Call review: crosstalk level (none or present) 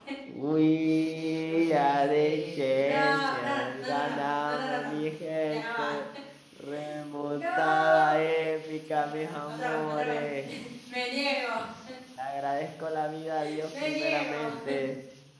present